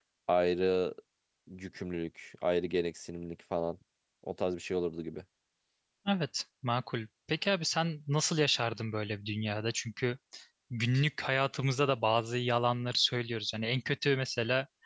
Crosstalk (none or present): none